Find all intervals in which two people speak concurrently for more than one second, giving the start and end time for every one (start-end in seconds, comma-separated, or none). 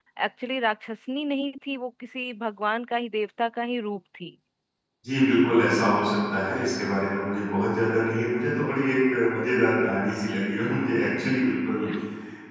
none